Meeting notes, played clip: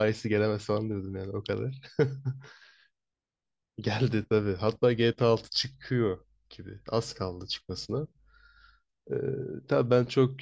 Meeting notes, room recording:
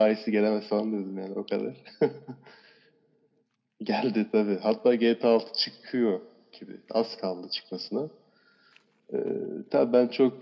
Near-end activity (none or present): none